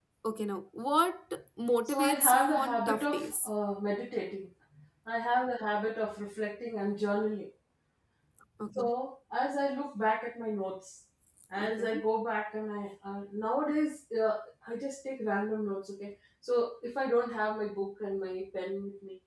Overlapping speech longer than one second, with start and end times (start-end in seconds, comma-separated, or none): 1.9-3.5